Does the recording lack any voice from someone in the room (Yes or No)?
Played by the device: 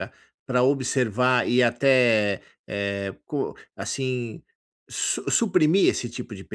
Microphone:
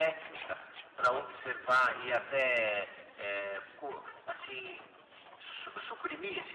Yes